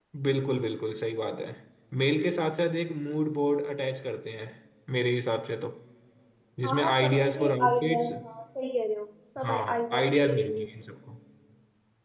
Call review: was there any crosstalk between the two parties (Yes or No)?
Yes